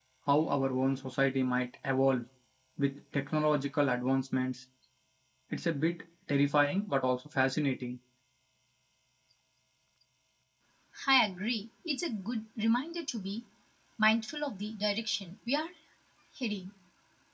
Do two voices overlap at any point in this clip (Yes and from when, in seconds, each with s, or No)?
No